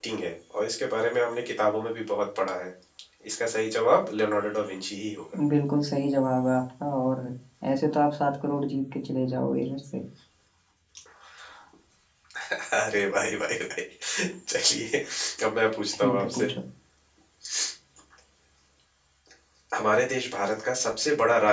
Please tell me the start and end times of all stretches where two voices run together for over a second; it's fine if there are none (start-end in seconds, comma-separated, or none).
none